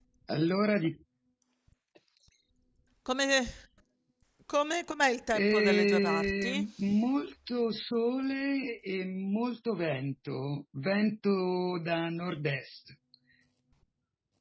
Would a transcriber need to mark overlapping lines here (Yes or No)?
Yes